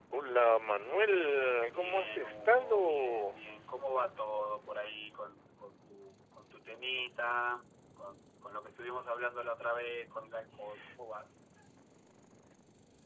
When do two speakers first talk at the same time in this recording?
2 s

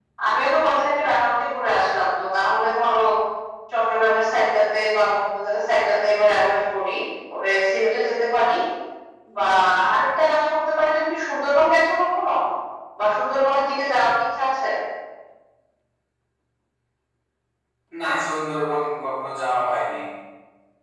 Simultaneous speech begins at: none

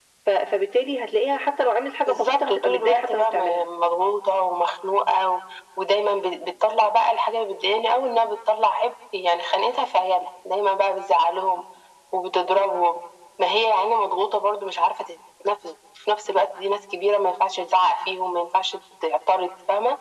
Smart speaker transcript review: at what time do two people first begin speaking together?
2 s

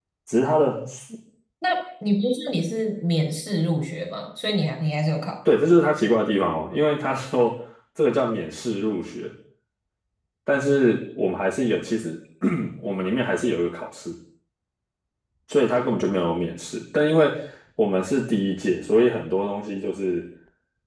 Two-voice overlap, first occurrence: none

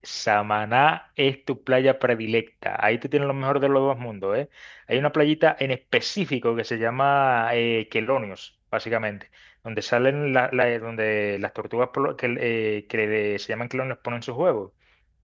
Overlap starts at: none

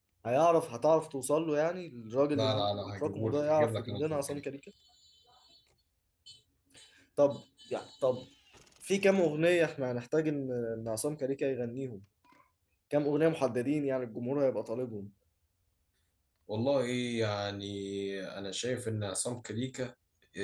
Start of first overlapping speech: 2 s

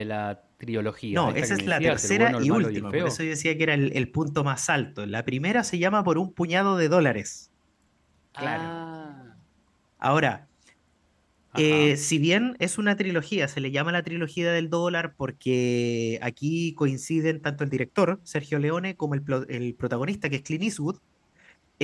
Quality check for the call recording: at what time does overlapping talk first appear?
1 s

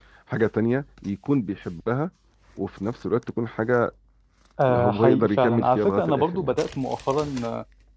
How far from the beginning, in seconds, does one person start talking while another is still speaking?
5 s

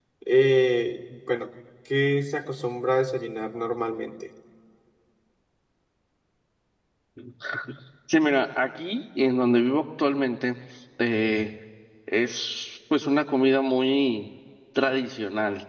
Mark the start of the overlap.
none

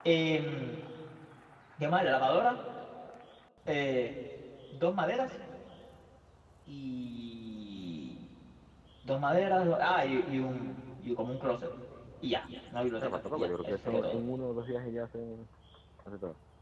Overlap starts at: 13 s

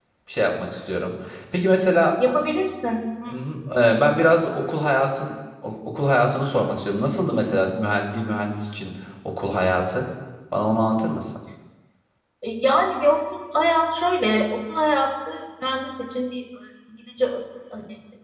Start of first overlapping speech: none

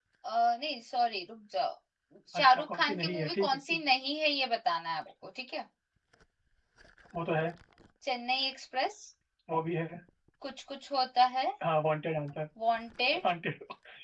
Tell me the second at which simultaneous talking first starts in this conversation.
2 s

